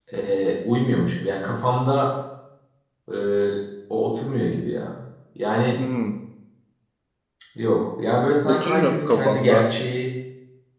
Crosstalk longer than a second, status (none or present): present